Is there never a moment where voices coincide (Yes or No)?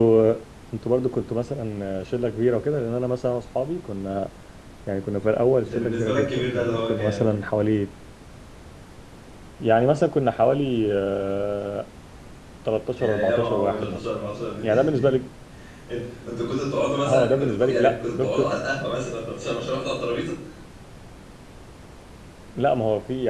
No